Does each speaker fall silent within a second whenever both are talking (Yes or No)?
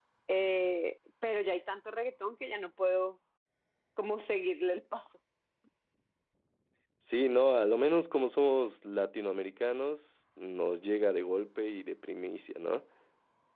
Yes